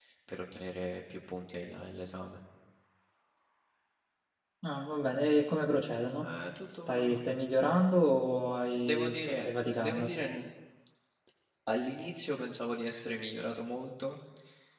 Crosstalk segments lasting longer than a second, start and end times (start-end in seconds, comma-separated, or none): 8.9-10.1